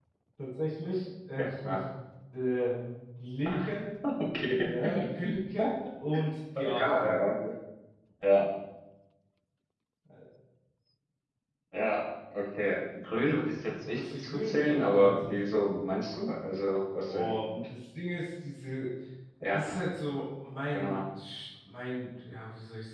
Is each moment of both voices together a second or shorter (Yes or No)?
No